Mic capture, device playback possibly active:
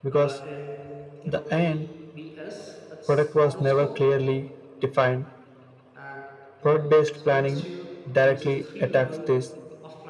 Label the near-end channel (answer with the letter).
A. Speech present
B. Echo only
A